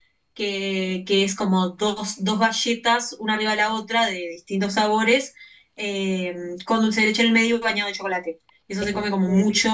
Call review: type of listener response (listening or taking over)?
listening